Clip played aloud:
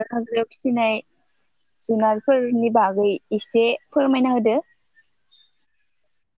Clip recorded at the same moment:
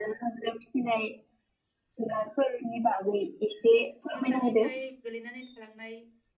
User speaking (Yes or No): Yes